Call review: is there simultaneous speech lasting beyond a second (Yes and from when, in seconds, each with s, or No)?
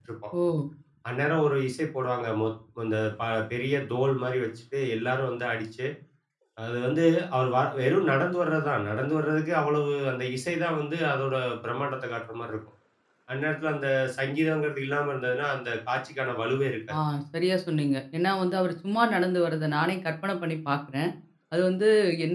No